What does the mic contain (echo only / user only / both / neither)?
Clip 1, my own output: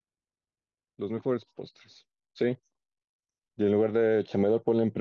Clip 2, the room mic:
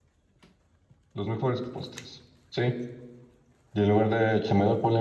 echo only